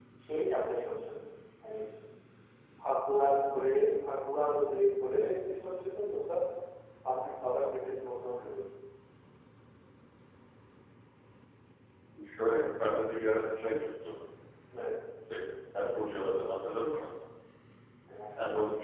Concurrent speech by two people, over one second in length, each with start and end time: none

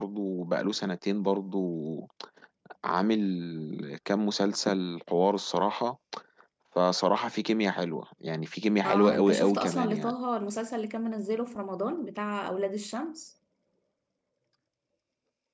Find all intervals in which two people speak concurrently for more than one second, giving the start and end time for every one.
8.8-10.1

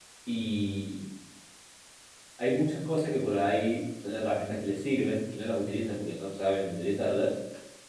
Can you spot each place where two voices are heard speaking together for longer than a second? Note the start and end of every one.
none

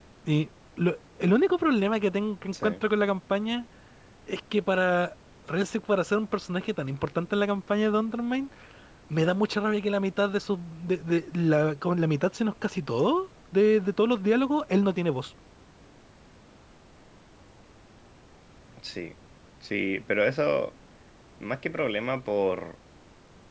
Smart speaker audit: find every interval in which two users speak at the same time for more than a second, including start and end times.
none

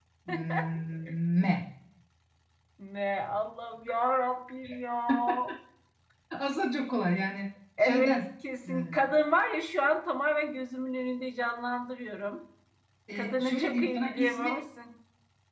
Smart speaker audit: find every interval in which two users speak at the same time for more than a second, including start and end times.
13.2-14.6

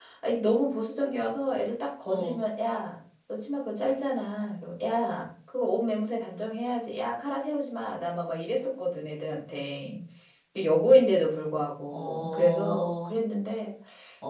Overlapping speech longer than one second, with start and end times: 11.9-13.1

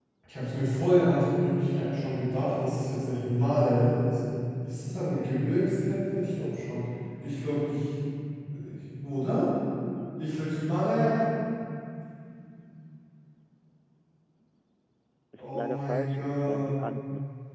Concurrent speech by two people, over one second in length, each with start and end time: 15.4-16.8

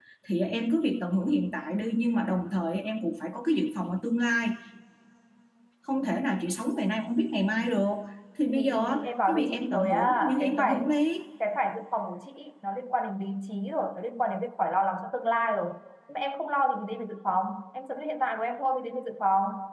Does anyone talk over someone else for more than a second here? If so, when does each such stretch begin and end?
8.5-10.9

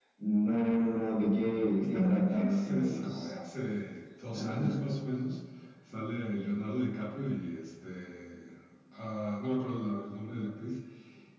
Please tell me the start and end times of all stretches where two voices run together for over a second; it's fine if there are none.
1.8-3.3

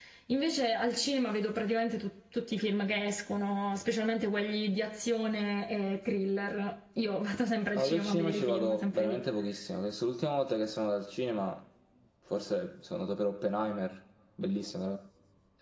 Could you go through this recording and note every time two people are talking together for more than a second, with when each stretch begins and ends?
7.7-9.2

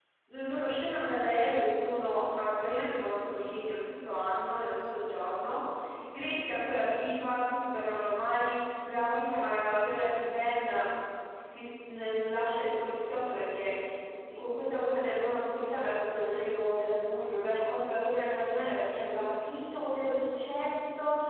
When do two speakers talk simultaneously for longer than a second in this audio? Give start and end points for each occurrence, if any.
none

